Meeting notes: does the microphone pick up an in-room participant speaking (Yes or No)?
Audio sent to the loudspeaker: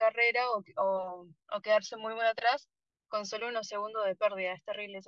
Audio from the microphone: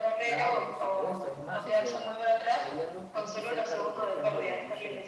Yes